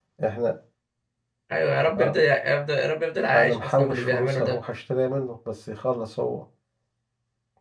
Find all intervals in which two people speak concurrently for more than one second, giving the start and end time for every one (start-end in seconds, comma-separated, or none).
3.3-4.6